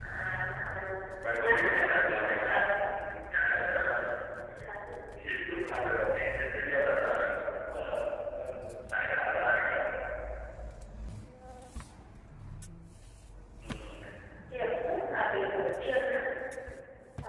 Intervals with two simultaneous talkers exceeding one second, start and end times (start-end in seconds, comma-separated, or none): 1.4-2.7